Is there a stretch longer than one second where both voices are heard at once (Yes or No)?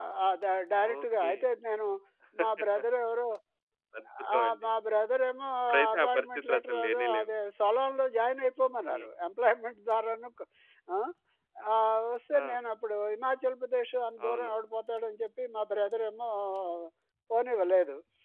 Yes